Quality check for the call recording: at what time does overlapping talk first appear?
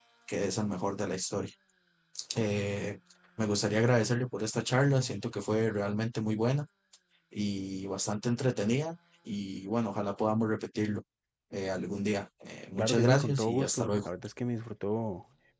12.8 s

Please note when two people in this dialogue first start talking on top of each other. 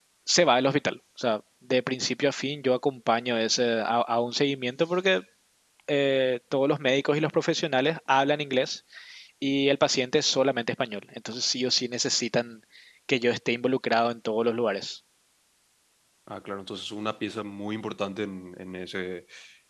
none

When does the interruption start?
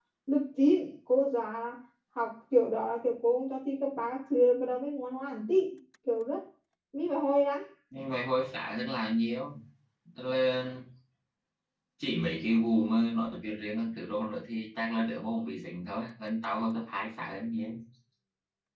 none

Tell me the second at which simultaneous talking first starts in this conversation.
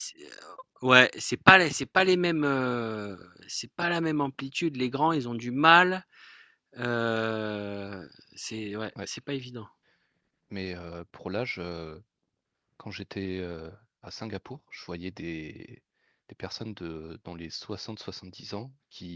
none

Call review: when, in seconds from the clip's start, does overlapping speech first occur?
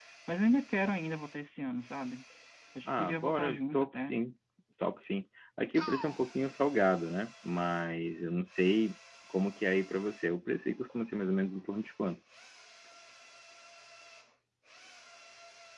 2.8 s

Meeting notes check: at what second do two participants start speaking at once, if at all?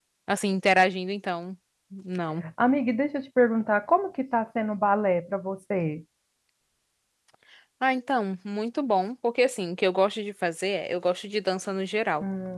none

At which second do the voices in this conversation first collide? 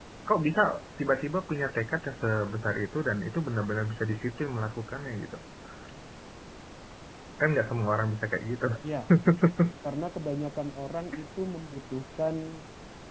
none

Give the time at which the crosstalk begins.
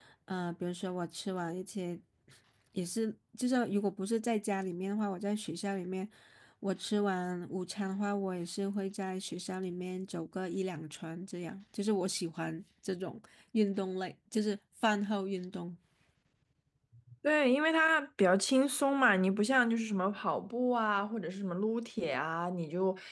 none

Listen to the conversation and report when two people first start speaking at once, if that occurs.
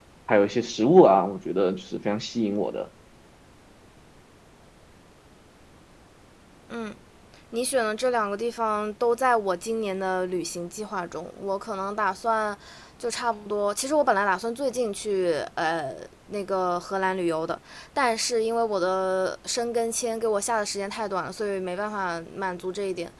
none

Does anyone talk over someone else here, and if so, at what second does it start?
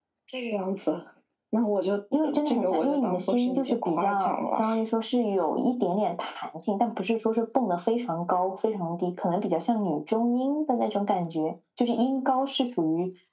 2.2 s

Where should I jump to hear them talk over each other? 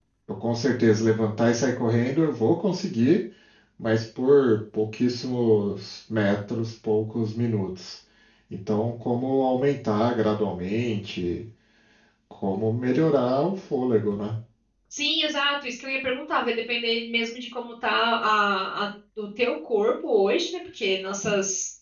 none

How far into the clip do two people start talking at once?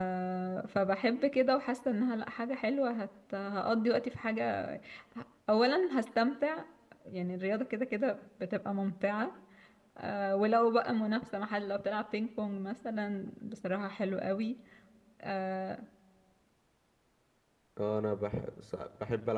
none

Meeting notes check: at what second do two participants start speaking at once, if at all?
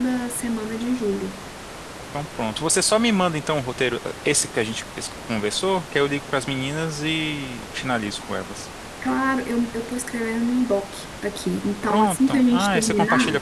11.9 s

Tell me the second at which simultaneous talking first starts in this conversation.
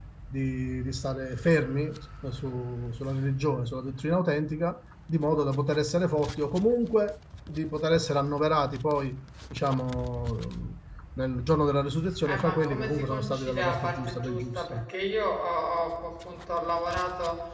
12.2 s

